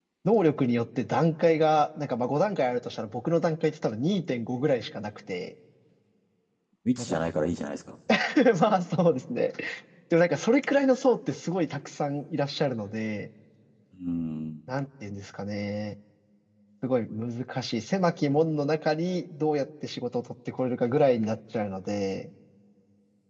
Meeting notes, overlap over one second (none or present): none